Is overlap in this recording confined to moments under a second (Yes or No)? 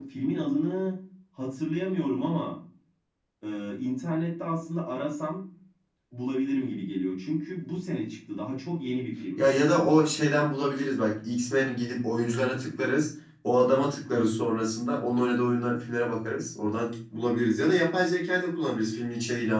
Yes